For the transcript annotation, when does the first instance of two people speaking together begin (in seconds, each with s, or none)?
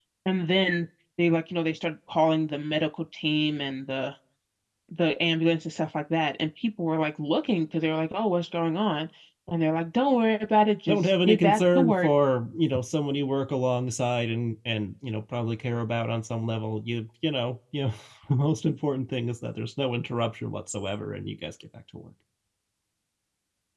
10.9 s